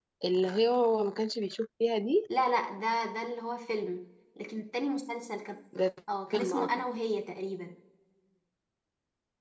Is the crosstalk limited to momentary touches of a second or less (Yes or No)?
Yes